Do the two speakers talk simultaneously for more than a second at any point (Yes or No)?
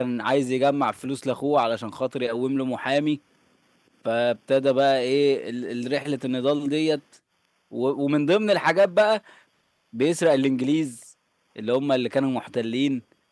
No